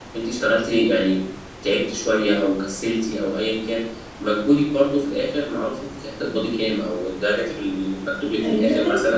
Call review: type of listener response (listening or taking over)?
listening